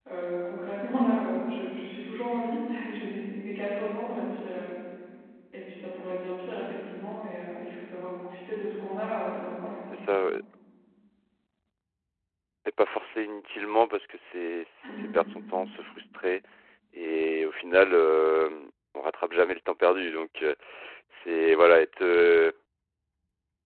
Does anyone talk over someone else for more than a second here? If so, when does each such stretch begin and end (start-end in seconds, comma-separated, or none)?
none